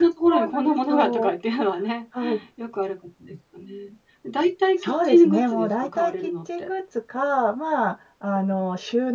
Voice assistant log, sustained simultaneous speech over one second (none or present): present